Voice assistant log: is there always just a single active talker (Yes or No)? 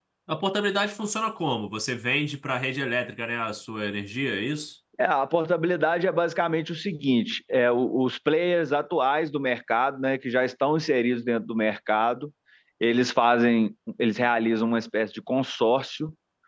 Yes